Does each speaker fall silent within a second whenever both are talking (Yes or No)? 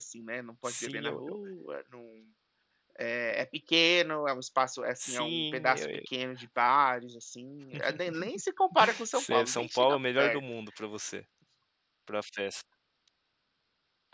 No